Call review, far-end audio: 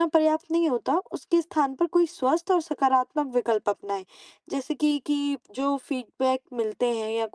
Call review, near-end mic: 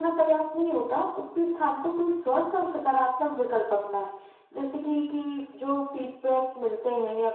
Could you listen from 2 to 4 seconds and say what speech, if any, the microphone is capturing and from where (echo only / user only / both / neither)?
echo only